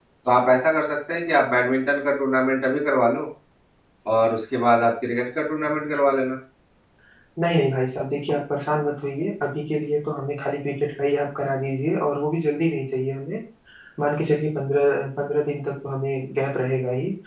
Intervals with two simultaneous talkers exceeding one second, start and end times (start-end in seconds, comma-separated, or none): none